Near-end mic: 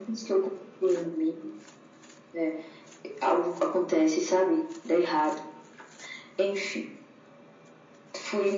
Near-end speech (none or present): none